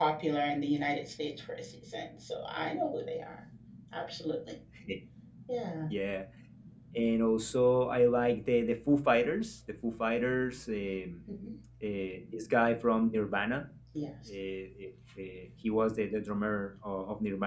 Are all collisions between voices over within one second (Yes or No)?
Yes